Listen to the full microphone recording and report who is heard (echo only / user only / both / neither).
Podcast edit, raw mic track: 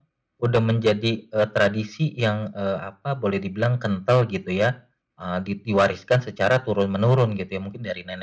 echo only